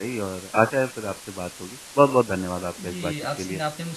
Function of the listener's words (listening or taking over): taking over